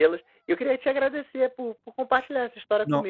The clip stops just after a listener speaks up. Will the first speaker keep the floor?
Yes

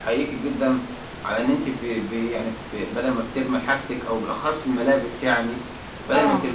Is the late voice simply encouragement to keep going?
Yes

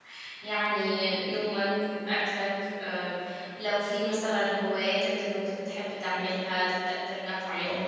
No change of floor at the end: Yes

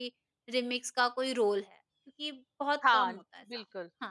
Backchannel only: No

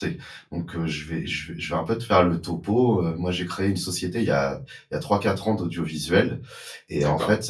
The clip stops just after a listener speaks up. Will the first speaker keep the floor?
Yes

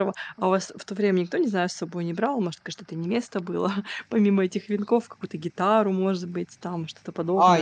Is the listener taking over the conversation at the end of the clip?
Yes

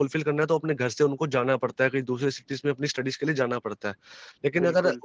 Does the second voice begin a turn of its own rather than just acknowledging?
No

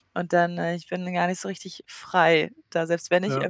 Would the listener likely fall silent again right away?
Yes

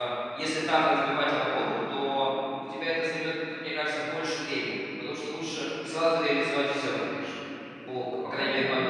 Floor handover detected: Yes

